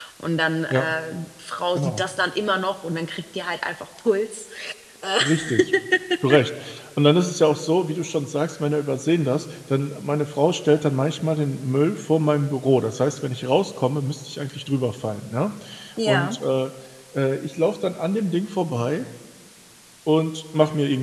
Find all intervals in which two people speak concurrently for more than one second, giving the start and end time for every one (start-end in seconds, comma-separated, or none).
none